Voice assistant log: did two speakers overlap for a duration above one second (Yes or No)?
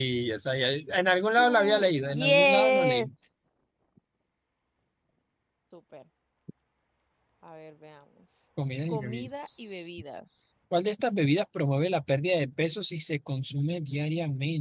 Yes